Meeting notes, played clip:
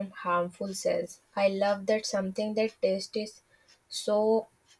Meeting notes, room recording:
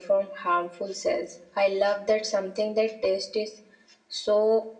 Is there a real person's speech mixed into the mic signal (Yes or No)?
No